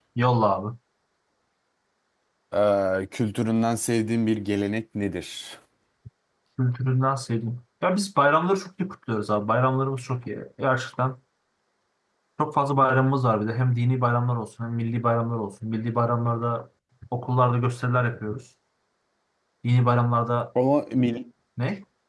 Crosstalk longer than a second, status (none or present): none